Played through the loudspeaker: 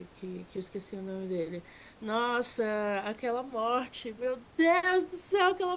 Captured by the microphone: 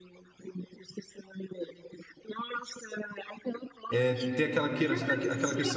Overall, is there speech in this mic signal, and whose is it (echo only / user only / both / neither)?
both